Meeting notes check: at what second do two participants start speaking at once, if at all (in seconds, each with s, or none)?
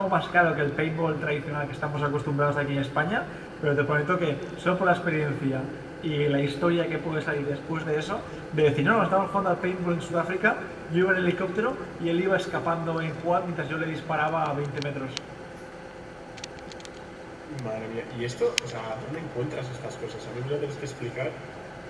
none